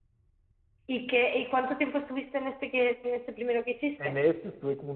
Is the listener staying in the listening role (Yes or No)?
No